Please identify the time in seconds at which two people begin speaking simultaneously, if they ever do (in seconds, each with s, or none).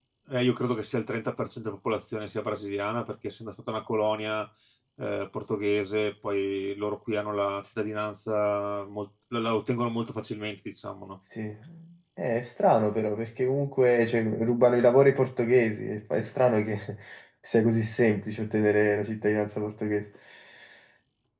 none